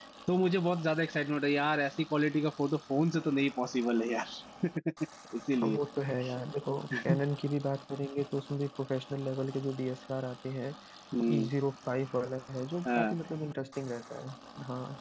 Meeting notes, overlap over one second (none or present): none